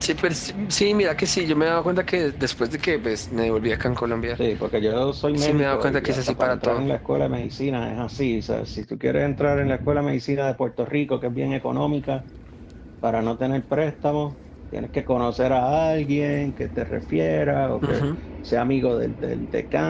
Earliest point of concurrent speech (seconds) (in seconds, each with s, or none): 5.3 s